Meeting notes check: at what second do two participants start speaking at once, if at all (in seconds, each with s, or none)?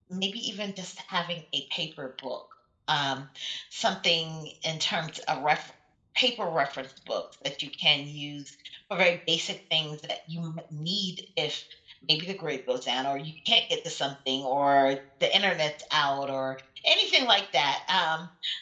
none